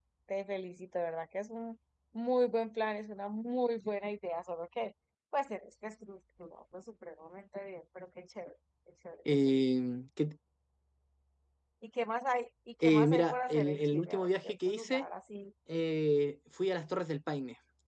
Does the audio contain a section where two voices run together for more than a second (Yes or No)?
Yes